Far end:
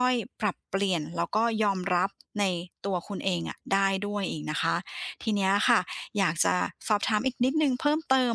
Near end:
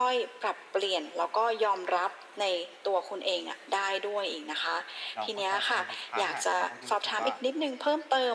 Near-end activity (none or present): present